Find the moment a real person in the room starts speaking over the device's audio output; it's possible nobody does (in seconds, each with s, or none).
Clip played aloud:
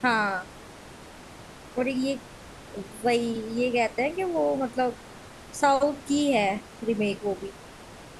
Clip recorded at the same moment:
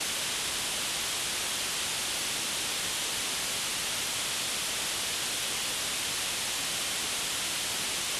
none